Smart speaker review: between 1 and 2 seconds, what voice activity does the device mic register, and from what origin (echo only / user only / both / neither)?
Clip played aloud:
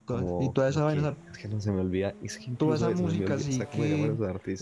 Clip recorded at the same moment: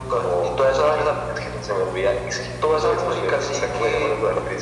echo only